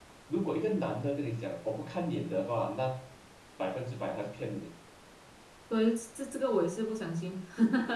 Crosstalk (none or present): none